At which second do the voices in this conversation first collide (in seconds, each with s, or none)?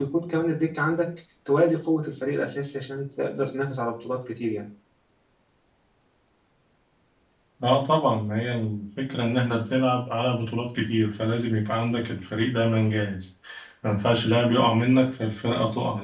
none